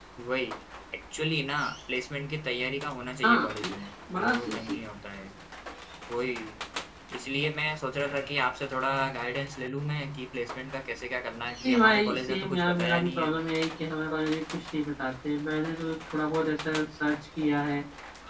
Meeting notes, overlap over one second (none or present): present